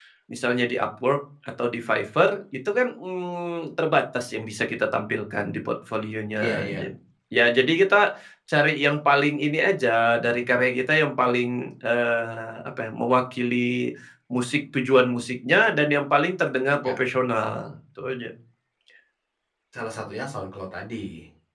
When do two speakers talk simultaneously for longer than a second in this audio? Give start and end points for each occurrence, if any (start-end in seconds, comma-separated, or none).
none